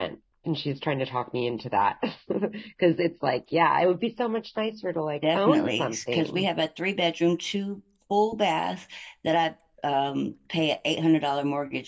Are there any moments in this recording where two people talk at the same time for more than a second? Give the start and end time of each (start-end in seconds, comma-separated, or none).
5.2-6.5